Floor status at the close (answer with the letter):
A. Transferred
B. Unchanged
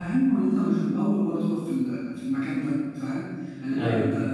B